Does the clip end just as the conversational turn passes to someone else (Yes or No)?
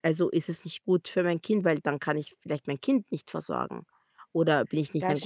No